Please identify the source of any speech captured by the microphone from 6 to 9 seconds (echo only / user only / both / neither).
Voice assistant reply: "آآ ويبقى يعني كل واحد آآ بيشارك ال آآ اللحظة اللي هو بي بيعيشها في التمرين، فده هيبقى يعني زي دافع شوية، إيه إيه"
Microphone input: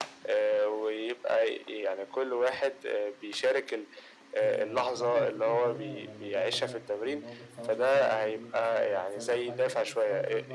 both